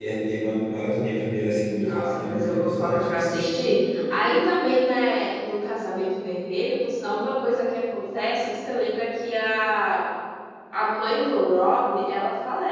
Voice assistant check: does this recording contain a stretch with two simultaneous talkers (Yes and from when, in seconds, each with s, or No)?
Yes, from 1.8 s